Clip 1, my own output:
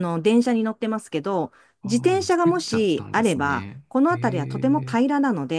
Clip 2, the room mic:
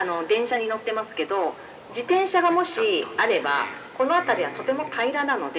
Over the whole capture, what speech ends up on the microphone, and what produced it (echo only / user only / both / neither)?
echo only